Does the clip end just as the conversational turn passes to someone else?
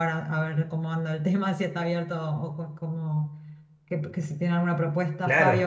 Yes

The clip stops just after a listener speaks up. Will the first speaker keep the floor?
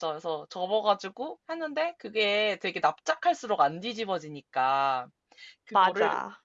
Yes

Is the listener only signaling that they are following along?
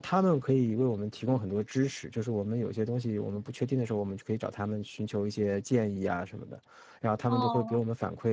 Yes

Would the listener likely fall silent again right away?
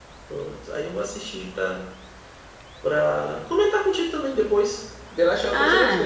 No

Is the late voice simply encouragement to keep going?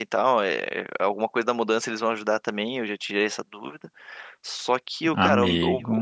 Yes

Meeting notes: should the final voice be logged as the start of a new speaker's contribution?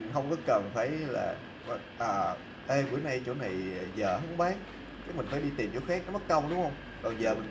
No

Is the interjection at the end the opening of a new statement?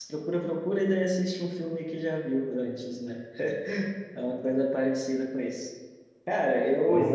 No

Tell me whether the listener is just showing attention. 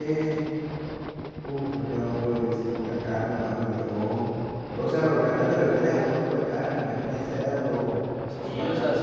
No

